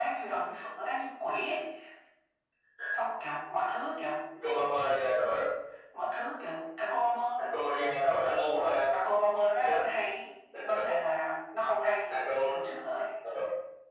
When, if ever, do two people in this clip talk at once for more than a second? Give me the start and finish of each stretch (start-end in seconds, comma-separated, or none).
none